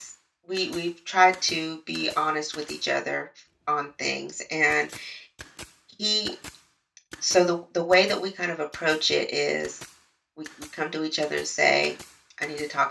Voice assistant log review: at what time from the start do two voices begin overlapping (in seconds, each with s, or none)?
none